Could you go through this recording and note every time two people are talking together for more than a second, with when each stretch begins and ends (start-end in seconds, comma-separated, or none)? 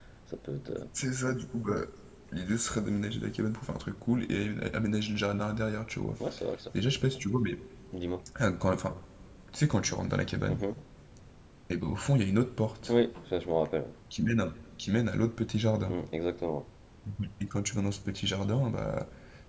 none